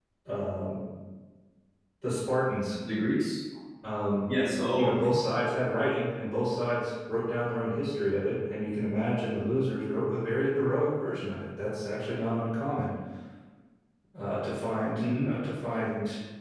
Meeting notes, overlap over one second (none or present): none